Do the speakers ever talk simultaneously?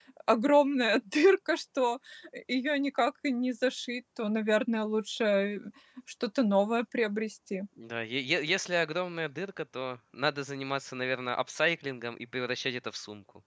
No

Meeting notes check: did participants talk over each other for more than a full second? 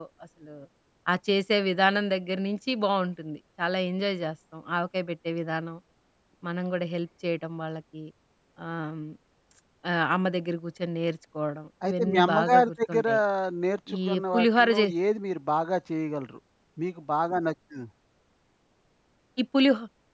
Yes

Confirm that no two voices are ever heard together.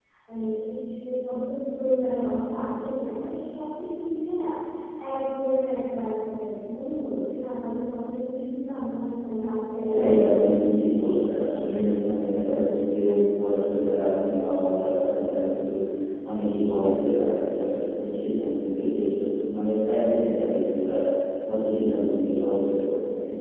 No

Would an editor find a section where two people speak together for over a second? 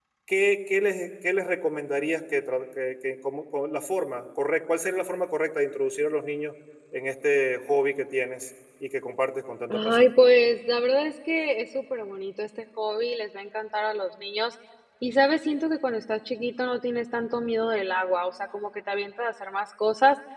No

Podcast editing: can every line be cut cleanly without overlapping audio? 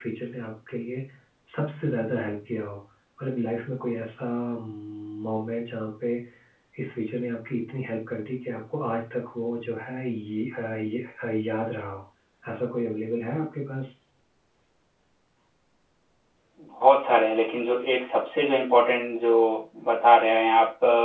Yes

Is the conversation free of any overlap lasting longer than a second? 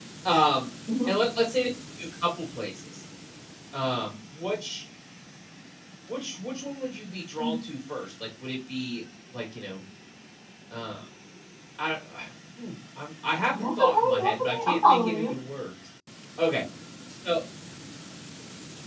No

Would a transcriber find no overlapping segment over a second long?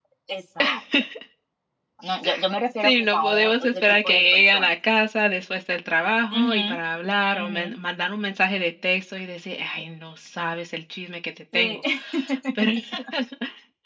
No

